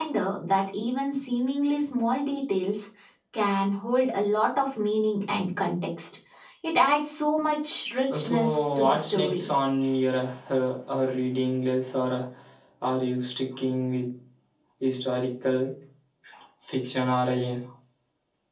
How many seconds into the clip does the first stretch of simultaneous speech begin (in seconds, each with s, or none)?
8.1 s